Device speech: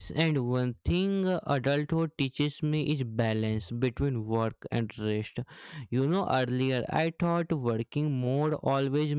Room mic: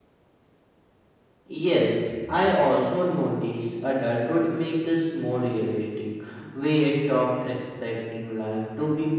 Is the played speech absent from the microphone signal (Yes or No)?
Yes